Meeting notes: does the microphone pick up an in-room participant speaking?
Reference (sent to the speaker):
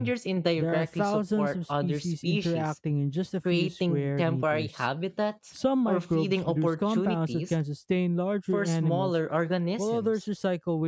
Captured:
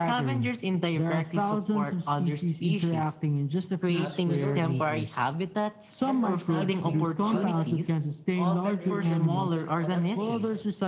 Yes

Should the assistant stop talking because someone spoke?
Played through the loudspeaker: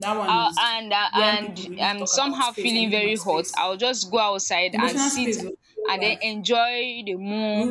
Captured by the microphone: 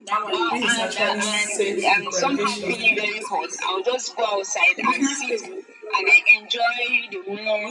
Yes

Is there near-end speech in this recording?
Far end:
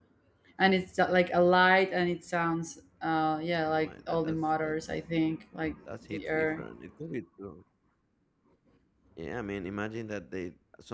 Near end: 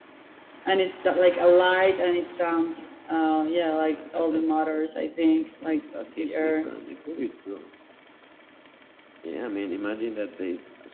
No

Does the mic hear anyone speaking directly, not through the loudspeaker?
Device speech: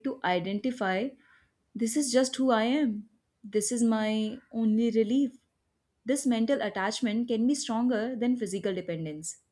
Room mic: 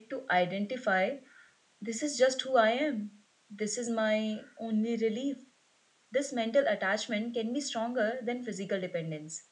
No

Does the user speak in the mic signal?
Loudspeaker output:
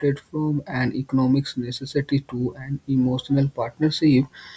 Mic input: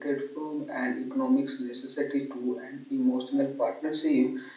No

